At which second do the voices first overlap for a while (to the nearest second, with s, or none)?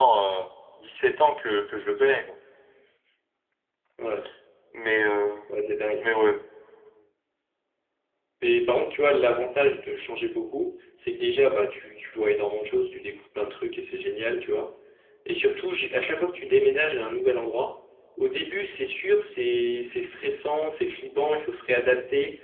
none